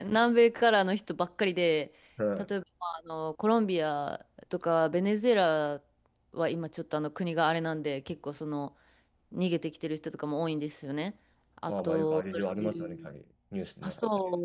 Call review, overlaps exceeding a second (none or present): present